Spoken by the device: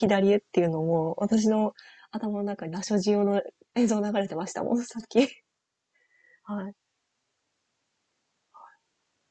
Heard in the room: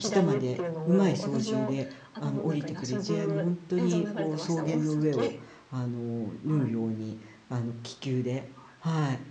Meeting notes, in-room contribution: present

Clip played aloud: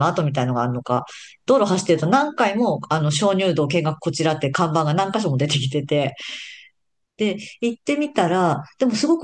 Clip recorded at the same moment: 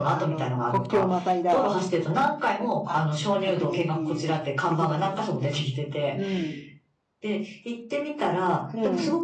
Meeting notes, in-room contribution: present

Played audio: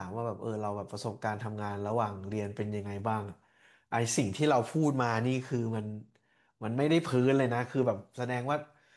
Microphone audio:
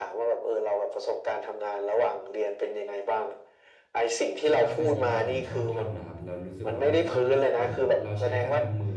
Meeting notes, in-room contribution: present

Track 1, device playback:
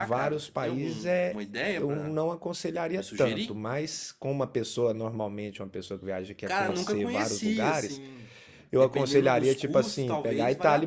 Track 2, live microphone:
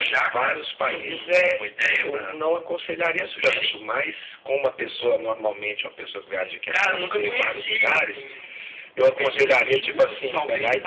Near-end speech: none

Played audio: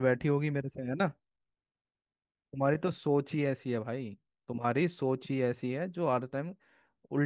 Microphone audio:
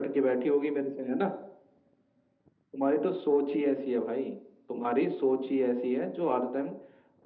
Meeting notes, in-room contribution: none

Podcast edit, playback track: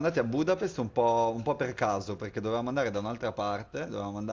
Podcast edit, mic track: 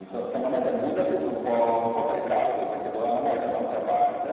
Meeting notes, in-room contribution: none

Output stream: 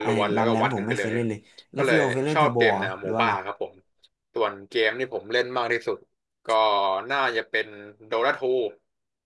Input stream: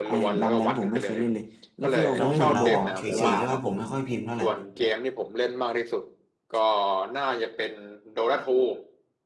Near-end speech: present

